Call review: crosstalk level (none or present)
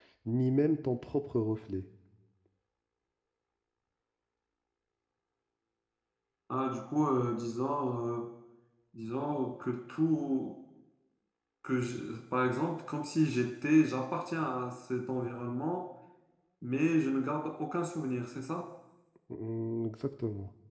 none